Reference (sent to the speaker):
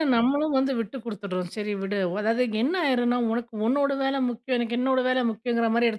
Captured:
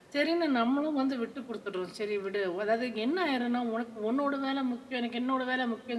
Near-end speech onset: none

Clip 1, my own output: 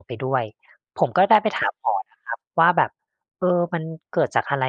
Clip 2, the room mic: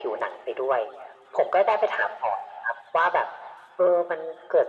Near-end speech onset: none

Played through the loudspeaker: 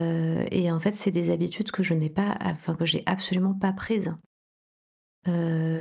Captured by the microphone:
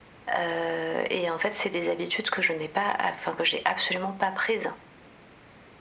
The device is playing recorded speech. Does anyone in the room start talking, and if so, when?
none

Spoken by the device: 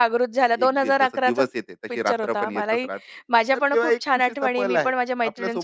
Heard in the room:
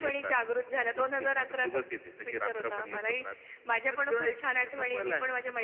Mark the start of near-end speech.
none

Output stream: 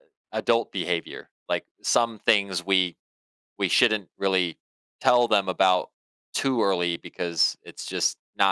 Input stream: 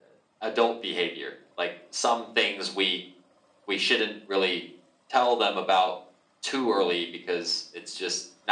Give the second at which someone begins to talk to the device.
none

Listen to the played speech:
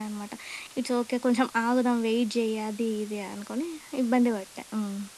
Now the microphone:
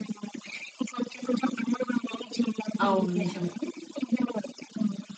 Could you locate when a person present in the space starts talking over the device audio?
2.9 s

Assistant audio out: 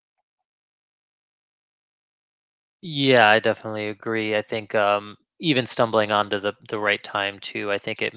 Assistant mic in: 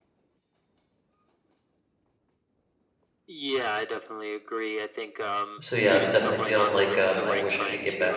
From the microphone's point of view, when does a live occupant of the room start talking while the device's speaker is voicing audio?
5.6 s

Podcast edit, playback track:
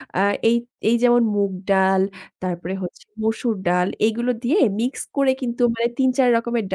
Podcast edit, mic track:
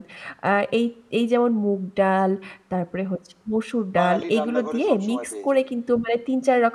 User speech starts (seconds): 4.0 s

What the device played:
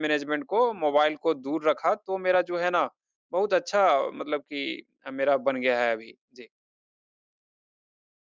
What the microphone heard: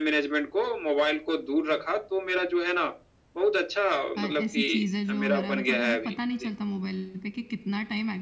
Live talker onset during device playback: 4.2 s

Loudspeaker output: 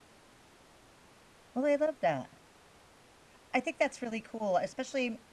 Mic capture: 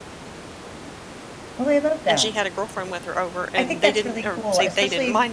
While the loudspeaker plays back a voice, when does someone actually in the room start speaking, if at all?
2.1 s

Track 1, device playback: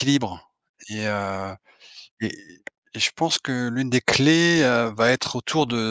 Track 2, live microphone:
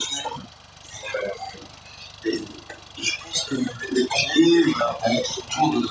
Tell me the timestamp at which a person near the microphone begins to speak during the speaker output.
none

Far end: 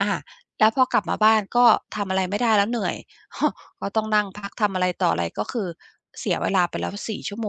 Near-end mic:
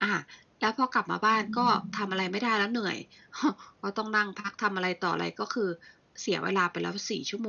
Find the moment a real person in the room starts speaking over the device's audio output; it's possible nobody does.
1.3 s

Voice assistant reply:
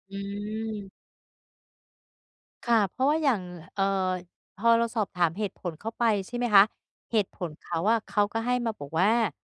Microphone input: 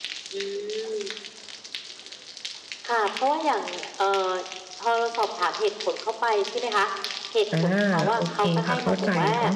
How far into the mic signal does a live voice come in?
7.5 s

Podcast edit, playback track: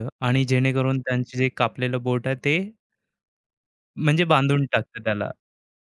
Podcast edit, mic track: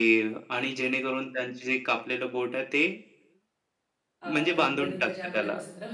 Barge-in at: 4.2 s

